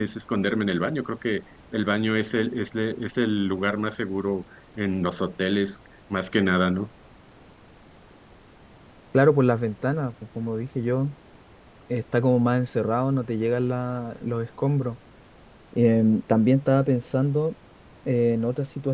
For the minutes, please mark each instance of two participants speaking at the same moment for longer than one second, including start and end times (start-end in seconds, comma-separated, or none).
none